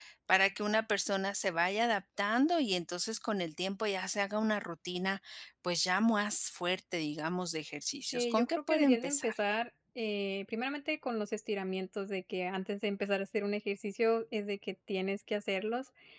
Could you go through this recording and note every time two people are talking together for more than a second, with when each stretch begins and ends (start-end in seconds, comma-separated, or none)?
8.1-9.3